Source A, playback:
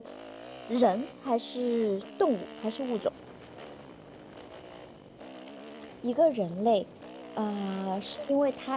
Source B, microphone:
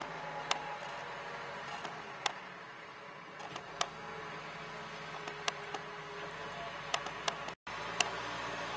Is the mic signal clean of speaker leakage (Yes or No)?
Yes